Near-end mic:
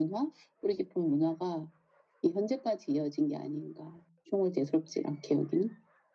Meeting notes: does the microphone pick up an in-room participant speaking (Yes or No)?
No